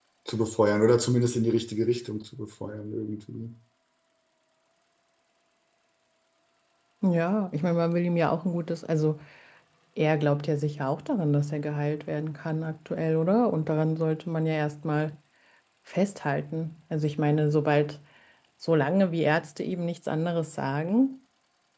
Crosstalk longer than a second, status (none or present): none